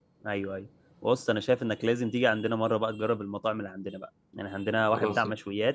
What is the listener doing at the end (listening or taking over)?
listening